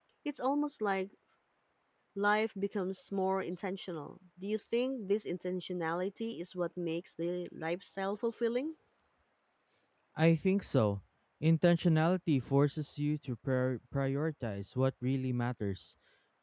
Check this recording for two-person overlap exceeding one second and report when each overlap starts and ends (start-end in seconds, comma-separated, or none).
none